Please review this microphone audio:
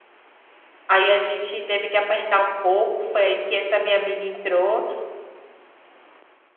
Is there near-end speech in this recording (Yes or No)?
Yes